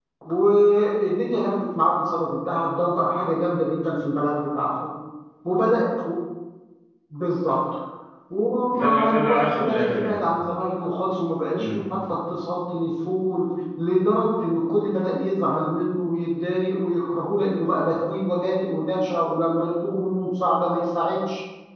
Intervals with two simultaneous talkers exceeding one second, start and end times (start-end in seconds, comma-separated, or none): 8.7-10.2